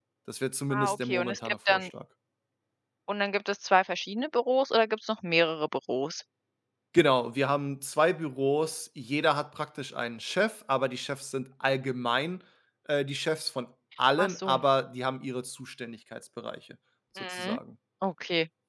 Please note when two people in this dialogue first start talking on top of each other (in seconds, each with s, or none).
0.7 s